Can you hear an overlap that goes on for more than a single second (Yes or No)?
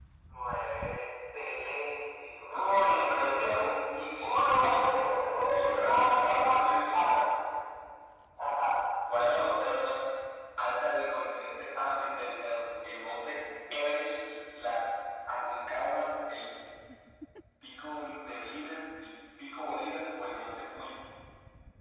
Yes